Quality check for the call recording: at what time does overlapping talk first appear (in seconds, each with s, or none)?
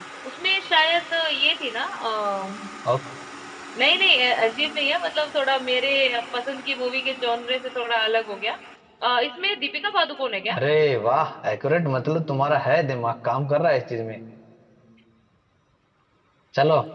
none